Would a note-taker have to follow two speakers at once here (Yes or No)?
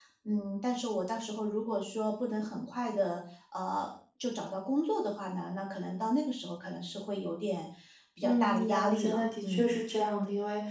Yes